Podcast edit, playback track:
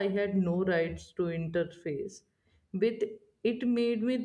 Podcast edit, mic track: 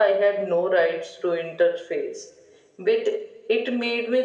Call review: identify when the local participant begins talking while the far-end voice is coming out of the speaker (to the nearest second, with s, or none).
none